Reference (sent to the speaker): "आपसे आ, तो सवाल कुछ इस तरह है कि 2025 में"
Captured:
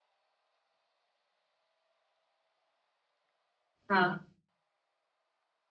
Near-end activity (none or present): present